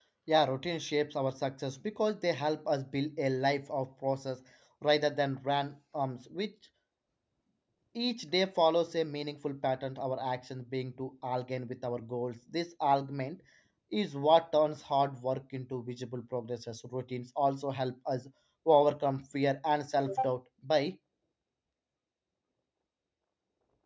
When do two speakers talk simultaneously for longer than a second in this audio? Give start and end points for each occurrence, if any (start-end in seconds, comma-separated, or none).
none